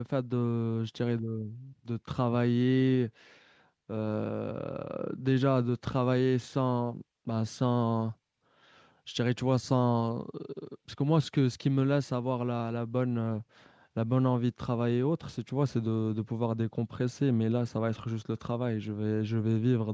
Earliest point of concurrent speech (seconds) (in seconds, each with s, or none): none